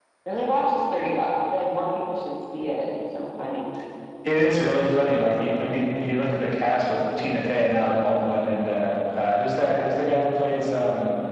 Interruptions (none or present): none